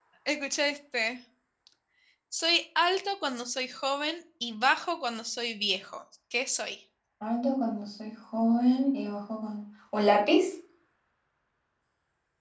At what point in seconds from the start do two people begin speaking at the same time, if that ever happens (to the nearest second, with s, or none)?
none